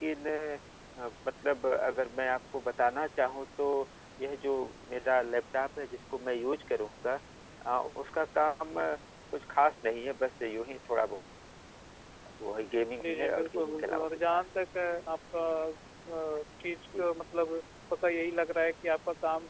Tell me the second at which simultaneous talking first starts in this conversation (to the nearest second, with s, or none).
13 s